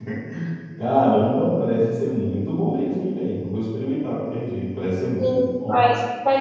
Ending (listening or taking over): taking over